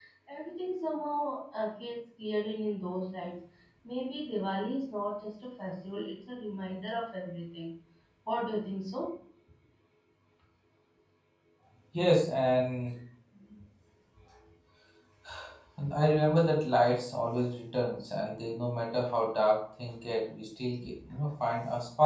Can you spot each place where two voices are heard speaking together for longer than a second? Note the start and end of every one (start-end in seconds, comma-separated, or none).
none